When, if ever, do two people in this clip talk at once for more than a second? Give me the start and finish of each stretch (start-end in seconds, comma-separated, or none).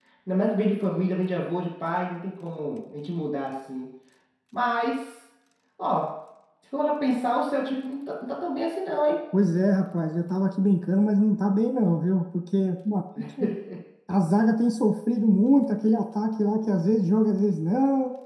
none